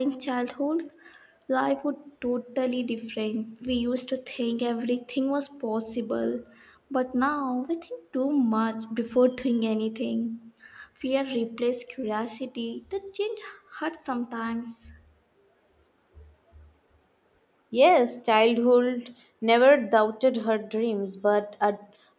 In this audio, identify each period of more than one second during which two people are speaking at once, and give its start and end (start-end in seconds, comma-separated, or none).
none